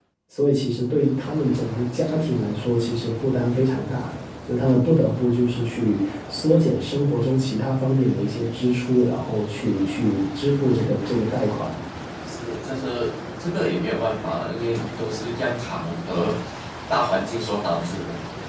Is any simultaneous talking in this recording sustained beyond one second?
No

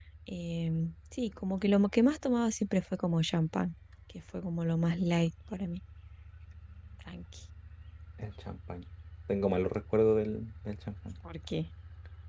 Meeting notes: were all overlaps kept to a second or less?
Yes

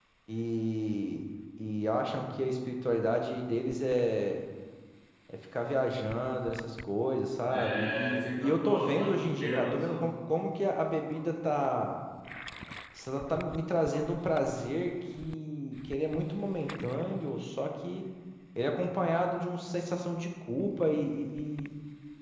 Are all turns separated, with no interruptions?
No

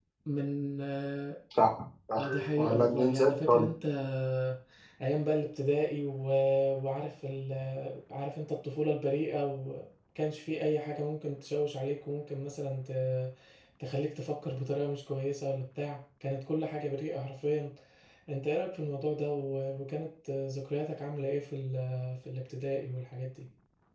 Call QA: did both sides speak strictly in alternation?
No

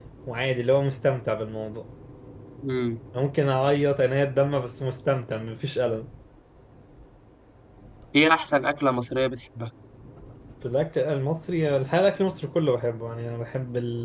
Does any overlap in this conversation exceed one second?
No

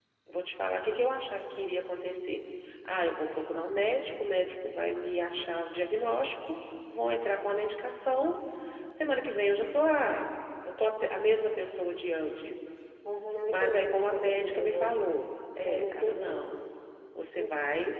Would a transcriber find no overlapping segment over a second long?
No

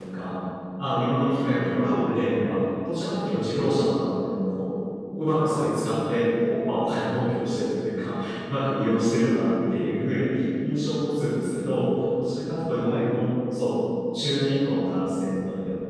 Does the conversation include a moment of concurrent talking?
Yes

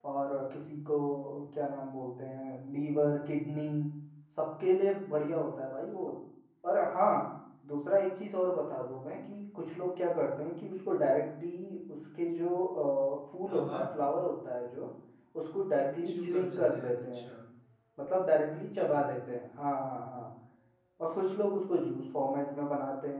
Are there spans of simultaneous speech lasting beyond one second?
Yes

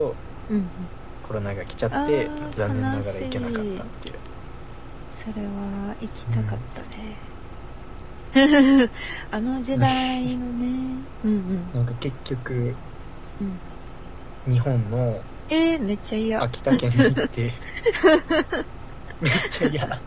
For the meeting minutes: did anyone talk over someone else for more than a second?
Yes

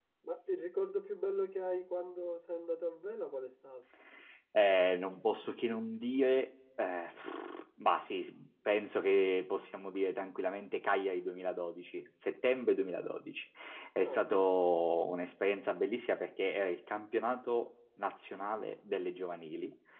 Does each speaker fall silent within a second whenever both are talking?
Yes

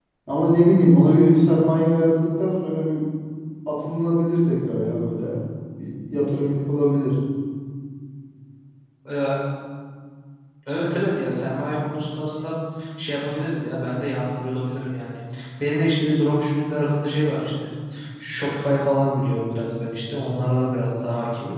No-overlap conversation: Yes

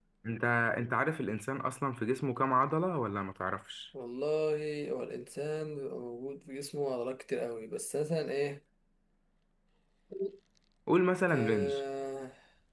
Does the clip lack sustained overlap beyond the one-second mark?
Yes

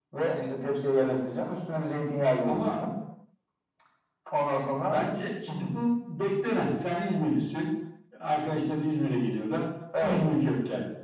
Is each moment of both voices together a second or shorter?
Yes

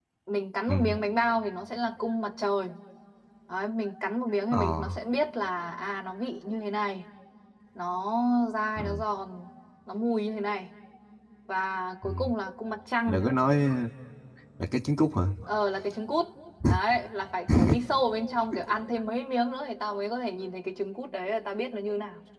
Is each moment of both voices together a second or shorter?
Yes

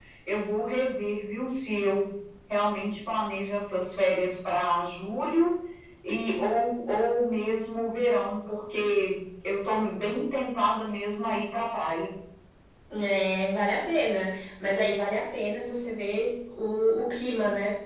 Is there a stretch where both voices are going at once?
No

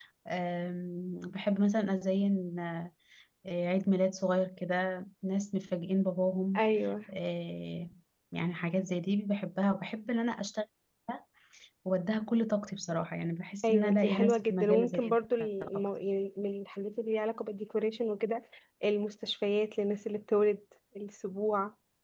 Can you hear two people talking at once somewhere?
Yes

